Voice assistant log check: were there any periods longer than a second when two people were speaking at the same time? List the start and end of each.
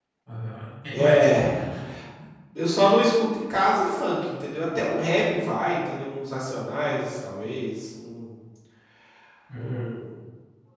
none

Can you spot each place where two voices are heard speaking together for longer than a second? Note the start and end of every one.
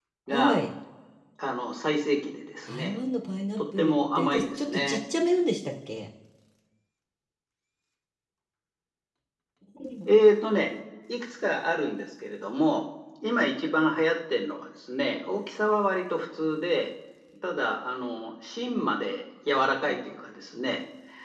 3.6-5.0

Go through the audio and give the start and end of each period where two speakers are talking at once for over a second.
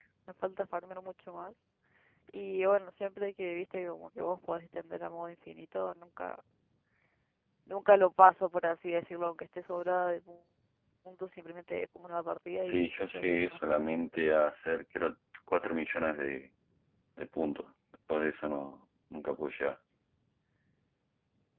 12.6-13.9

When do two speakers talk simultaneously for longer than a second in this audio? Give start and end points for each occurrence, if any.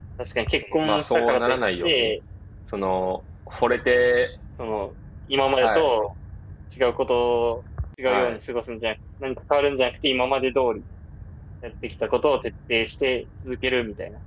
0.8-2.1

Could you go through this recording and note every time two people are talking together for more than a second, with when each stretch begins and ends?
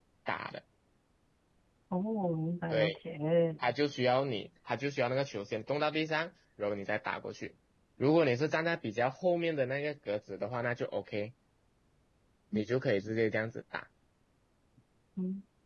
none

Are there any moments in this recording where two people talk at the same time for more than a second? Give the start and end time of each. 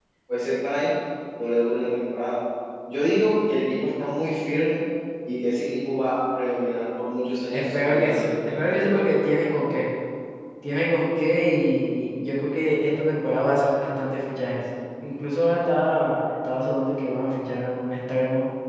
7.5-9.0

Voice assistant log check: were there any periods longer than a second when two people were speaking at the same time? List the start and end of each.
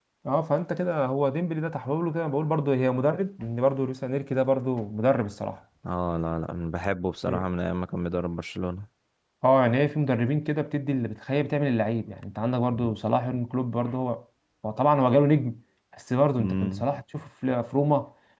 none

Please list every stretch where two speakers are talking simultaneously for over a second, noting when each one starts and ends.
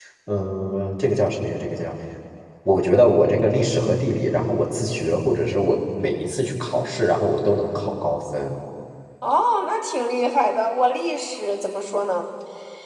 none

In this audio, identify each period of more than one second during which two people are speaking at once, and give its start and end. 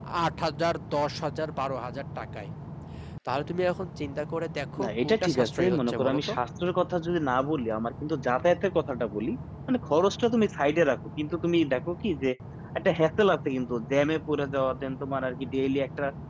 4.8-6.3

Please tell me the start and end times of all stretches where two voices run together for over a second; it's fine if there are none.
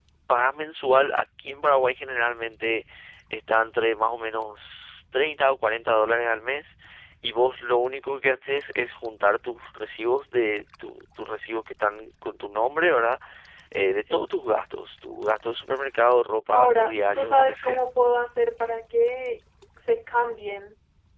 16.5-17.8

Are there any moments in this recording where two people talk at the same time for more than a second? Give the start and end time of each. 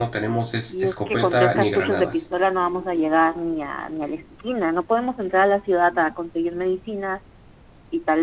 0.7-2.2

